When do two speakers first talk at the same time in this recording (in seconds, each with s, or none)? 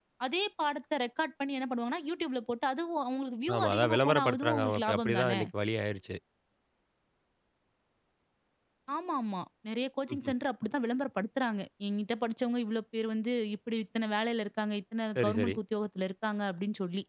3.6 s